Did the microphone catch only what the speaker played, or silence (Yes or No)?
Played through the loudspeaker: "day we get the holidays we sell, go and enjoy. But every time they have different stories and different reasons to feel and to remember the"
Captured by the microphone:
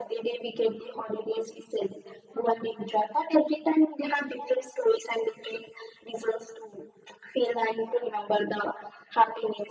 Yes